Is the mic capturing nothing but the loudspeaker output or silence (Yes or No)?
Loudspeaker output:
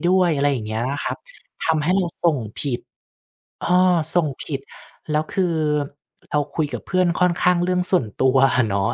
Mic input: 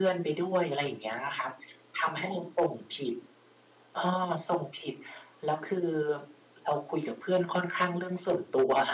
Yes